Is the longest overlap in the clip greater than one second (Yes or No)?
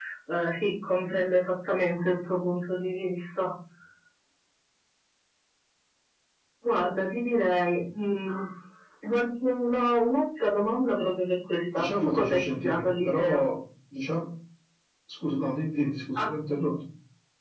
Yes